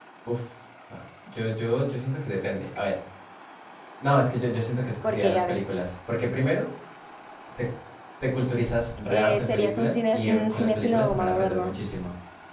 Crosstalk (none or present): present